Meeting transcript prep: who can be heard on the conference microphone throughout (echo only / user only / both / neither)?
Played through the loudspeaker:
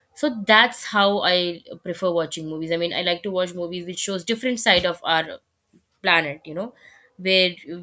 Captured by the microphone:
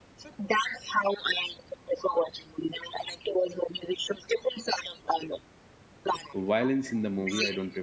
both